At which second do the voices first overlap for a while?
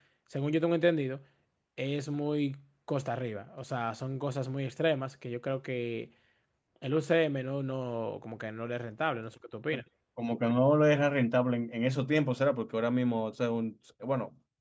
none

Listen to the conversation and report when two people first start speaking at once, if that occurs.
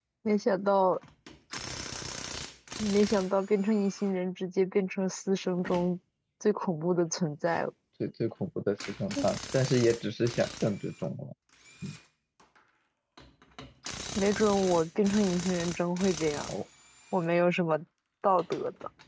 none

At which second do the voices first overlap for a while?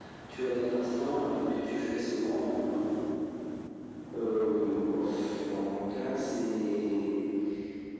none

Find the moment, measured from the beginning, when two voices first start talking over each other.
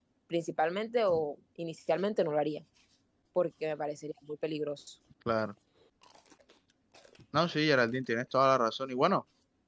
none

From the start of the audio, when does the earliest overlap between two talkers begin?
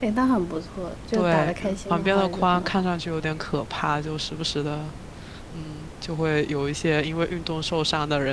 1 s

